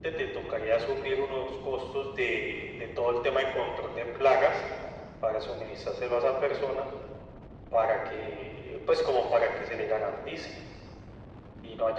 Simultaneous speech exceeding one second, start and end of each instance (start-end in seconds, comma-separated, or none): none